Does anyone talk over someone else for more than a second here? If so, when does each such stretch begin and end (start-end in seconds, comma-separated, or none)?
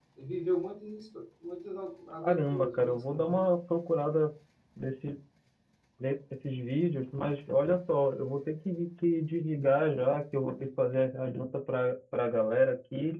2.2-3.5